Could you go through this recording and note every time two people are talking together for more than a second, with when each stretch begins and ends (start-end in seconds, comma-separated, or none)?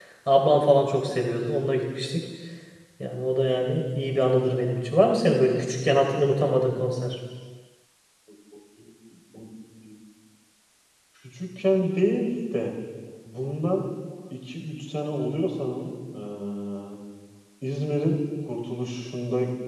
none